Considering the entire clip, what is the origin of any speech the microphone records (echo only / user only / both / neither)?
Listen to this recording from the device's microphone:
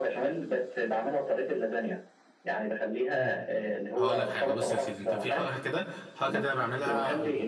both